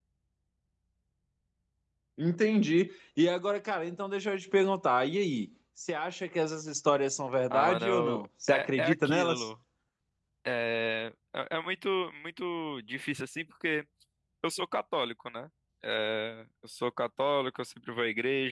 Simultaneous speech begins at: 7.5 s

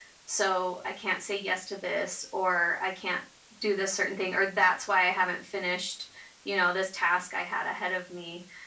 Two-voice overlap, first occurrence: none

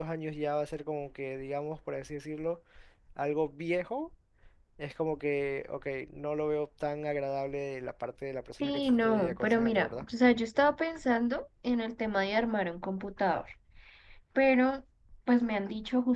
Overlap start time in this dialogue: 8.6 s

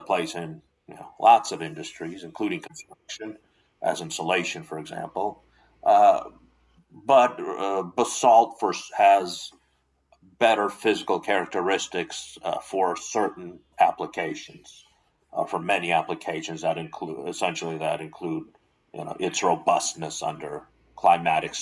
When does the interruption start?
none

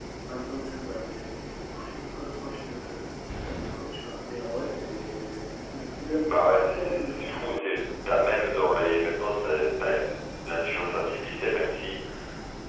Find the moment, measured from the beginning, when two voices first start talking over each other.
6.3 s

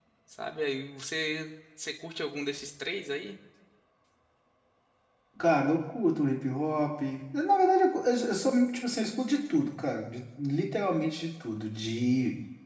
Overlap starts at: none

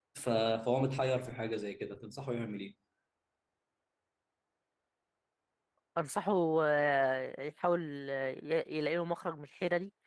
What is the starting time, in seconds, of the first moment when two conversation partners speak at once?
none

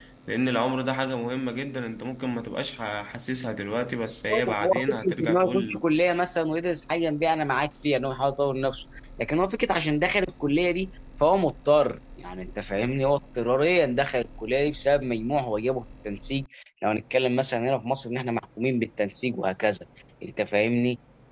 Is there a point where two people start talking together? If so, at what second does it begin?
4.3 s

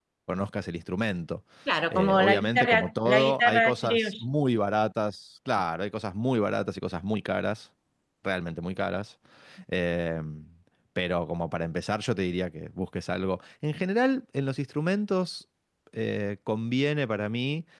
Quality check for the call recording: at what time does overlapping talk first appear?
1.9 s

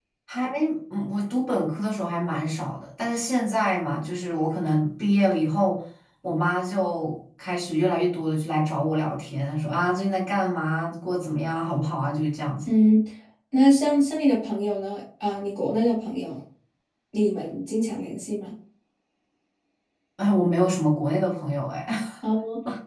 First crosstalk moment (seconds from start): none

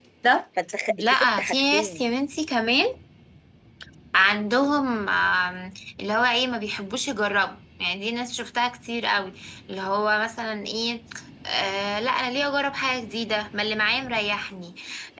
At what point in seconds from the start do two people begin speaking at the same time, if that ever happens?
0.9 s

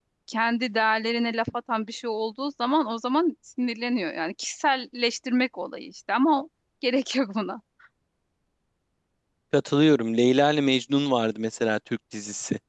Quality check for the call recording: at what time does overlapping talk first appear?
none

